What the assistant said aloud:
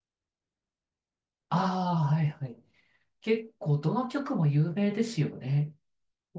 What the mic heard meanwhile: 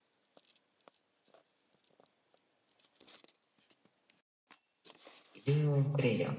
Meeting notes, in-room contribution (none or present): present